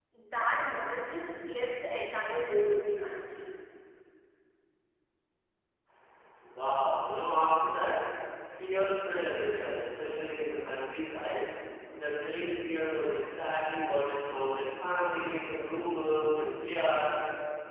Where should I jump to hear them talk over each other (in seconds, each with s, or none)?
none